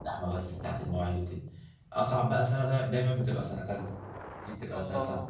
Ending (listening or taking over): listening